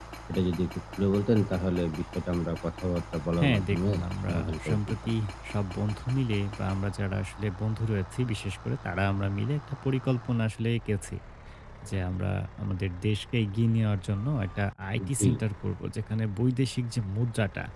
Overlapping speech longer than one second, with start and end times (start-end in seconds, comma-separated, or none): 3.4-5.1